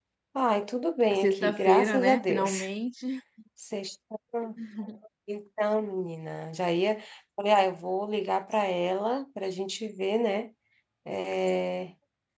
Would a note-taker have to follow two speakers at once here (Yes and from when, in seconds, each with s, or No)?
Yes, from 1.1 s